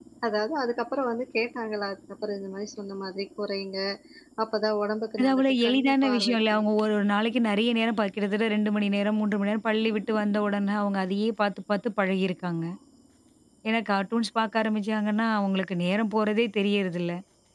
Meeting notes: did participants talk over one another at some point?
Yes, from 5.2 s

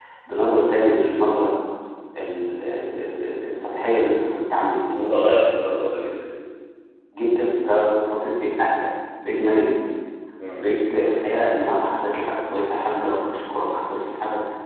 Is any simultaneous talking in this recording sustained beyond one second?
No

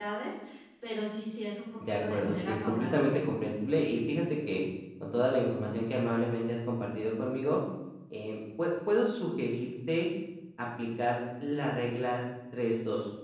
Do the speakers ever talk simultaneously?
Yes, from 1.8 s

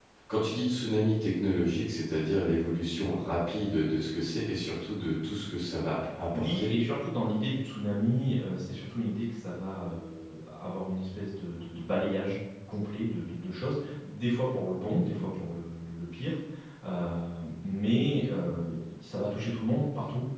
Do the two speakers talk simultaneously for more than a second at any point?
No

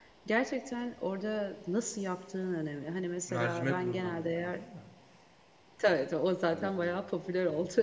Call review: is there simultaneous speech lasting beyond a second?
Yes, from 3.3 s

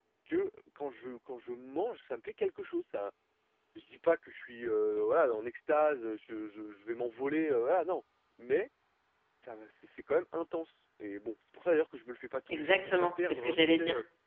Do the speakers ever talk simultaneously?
Yes, from 12.5 s

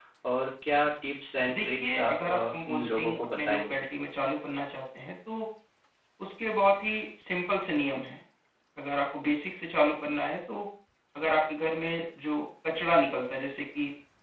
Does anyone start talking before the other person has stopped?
Yes, from 1.5 s

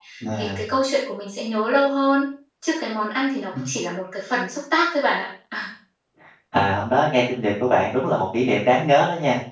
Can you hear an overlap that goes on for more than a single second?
No

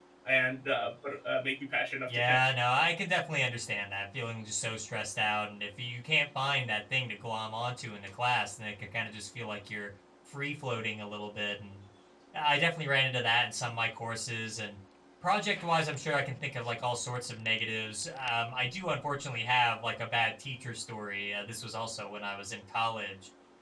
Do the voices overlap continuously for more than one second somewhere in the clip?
No

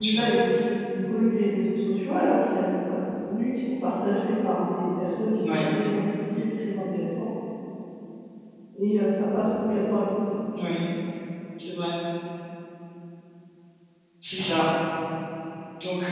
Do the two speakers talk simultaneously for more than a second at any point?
No

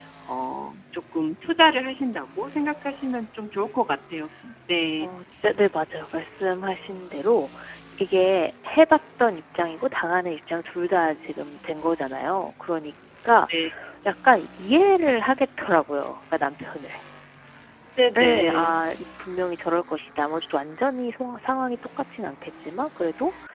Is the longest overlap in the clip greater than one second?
No

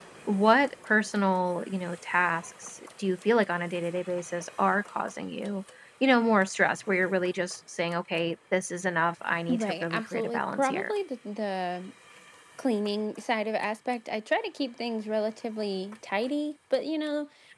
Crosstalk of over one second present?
Yes, from 9.5 s

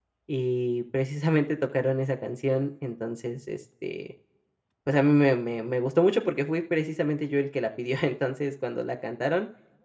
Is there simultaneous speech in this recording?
No

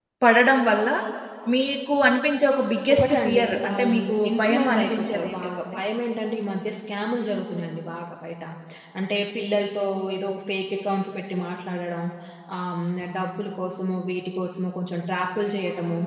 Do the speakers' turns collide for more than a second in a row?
Yes, from 2.9 s

